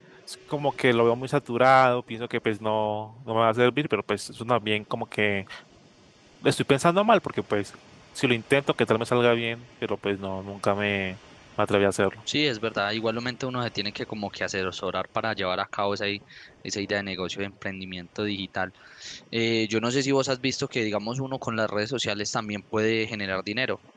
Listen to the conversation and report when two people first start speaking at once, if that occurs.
none

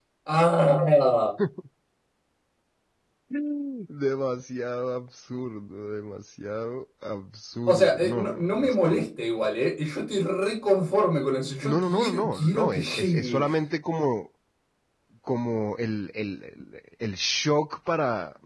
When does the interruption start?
7.7 s

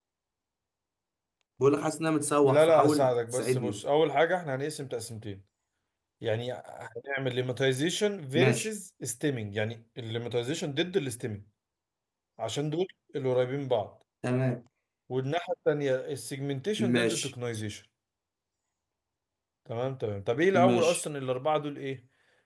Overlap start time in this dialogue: 2.4 s

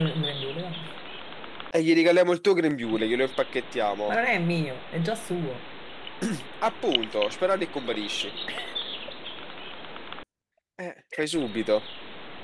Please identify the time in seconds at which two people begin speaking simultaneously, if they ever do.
none

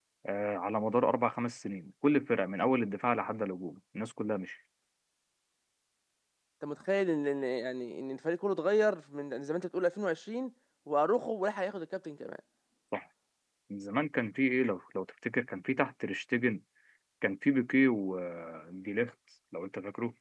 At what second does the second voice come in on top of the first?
none

